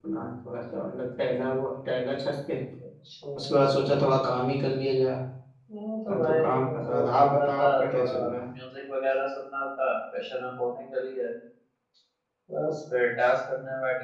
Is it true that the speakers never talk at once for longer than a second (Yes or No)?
No